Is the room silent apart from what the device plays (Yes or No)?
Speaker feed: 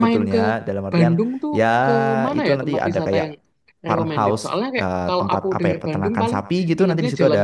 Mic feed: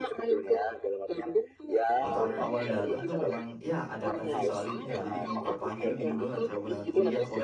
No